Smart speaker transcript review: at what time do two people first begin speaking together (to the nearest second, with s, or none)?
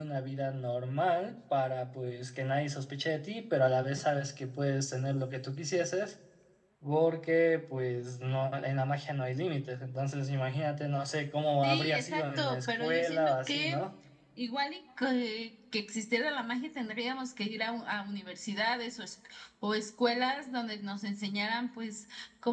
12 s